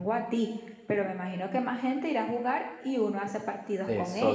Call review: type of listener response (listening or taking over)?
taking over